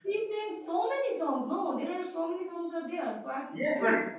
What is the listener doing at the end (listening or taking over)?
taking over